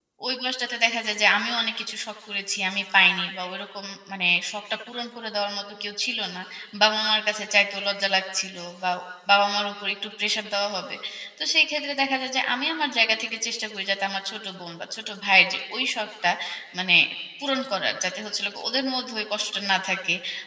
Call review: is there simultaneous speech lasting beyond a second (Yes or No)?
No